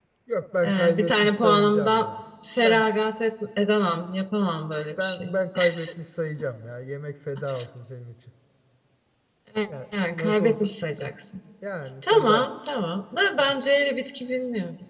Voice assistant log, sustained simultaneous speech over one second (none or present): present